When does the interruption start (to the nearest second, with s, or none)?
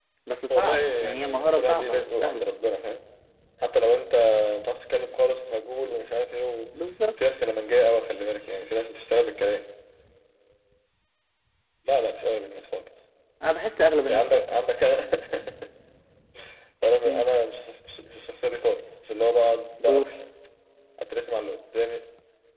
1 s